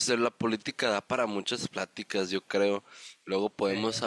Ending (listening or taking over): listening